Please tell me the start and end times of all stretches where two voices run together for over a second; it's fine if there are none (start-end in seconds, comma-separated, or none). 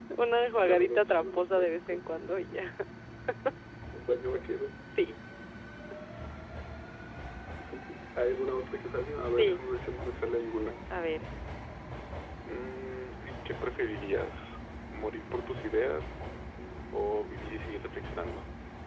0.6-2.0